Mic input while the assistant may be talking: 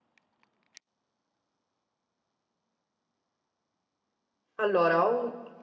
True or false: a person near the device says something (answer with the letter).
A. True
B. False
A